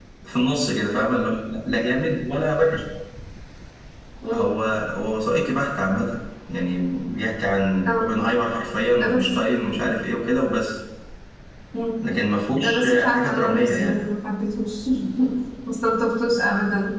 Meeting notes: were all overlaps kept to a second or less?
No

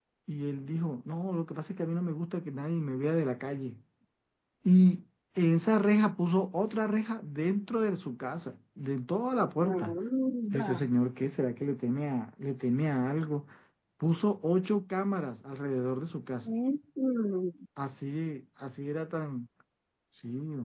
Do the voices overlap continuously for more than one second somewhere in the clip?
No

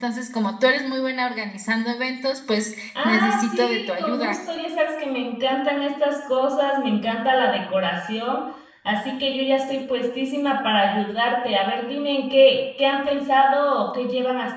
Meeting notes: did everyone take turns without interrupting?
No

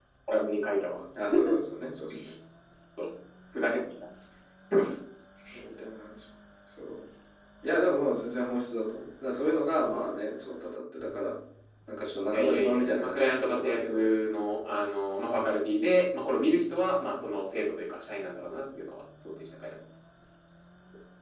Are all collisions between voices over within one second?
No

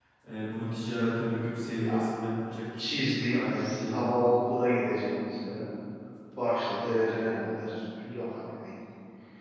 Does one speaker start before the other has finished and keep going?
Yes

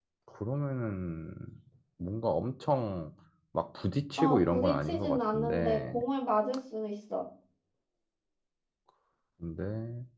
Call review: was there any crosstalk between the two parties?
Yes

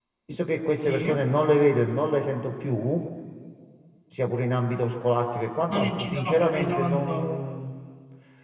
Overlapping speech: Yes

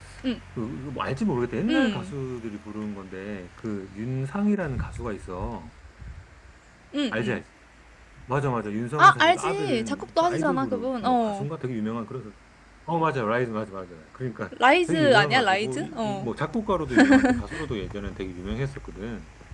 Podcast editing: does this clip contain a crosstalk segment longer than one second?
Yes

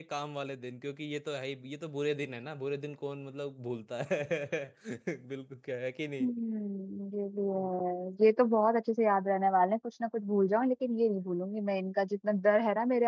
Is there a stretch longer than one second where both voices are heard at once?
No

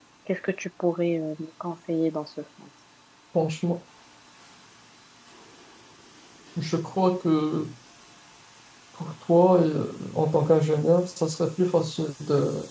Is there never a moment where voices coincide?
Yes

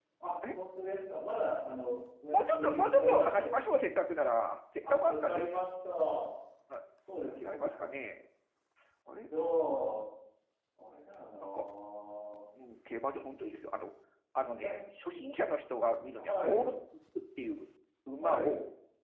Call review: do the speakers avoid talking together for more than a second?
No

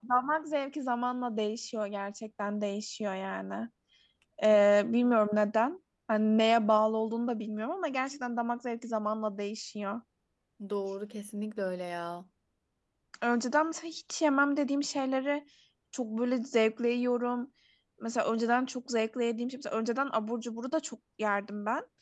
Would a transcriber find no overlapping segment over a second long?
Yes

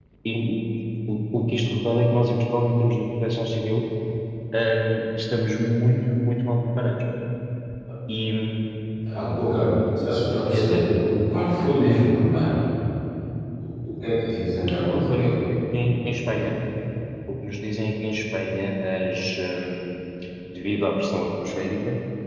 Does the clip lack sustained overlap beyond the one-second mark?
Yes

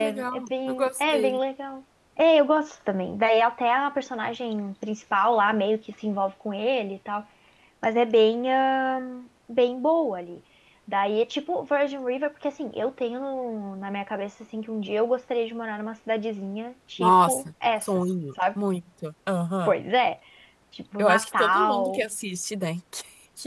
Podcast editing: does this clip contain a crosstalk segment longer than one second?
Yes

